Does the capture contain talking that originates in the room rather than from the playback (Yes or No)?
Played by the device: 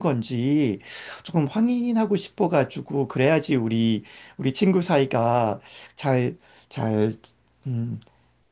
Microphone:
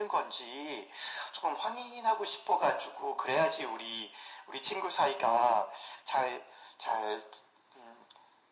No